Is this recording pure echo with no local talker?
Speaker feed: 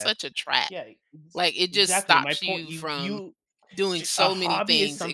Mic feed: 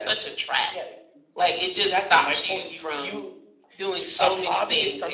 No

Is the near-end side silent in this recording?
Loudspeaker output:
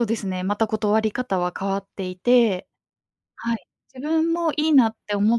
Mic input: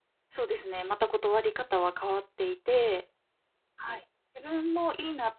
Yes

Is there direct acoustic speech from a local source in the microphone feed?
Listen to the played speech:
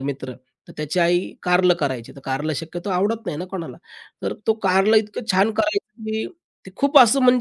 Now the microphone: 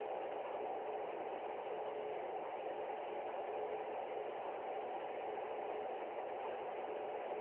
No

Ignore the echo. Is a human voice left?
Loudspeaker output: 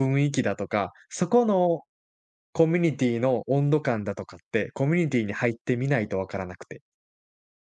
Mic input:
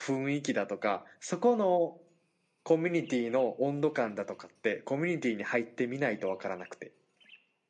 No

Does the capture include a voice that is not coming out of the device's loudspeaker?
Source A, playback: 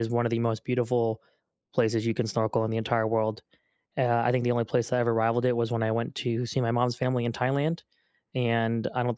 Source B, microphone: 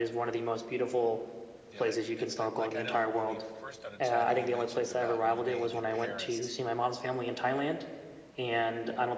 Yes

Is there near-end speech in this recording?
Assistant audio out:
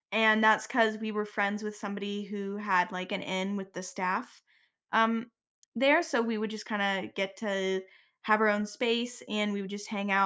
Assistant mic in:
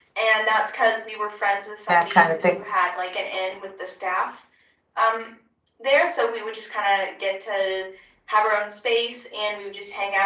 Yes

